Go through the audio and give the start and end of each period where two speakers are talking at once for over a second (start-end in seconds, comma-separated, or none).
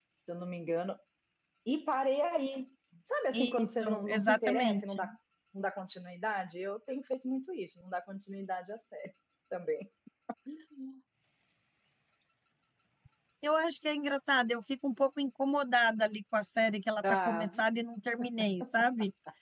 3.3-5.0